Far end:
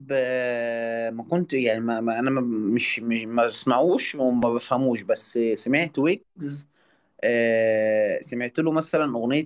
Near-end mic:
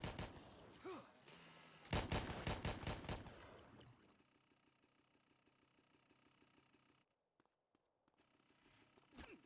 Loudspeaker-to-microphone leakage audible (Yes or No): No